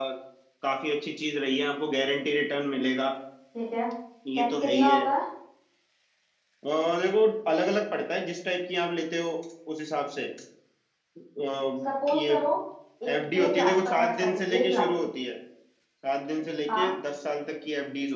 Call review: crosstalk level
present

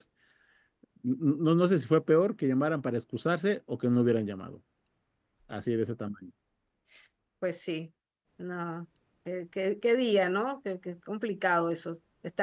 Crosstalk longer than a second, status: none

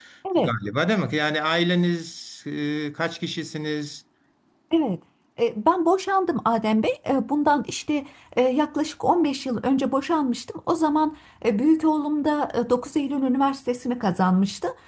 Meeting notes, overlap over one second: none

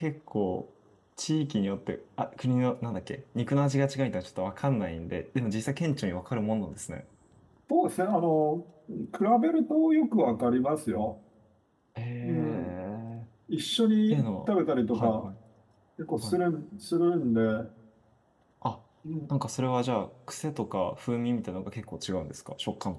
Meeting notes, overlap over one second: none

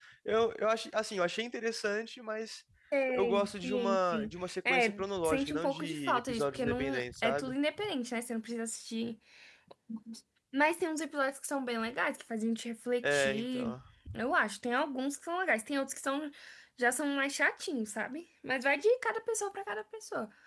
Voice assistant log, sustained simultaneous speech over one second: present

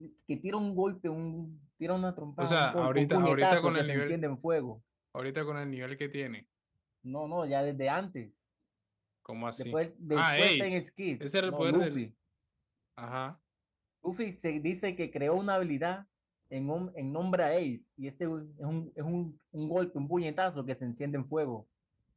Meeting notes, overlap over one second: present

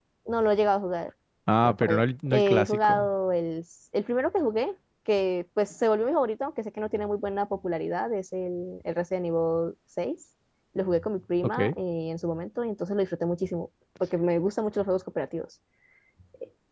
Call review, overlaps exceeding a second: present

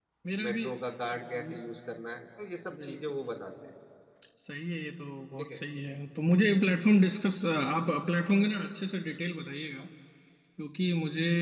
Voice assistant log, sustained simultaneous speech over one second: none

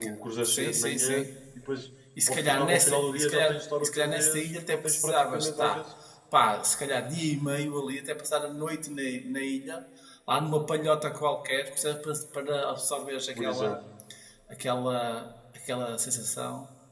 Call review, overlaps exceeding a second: present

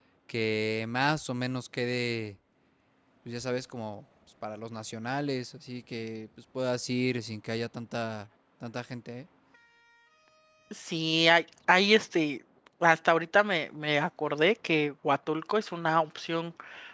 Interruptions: none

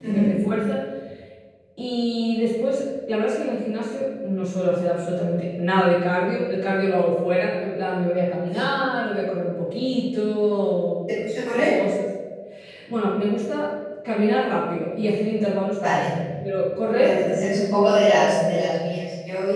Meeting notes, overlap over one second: none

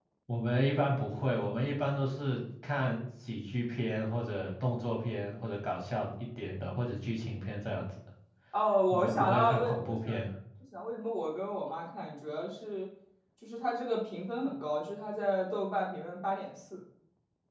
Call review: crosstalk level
present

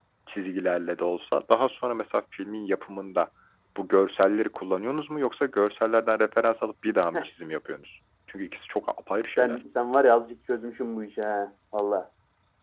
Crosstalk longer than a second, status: none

